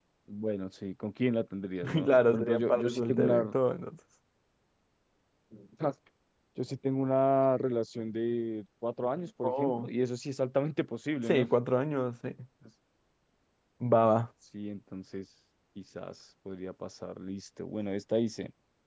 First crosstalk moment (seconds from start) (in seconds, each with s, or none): 1.8 s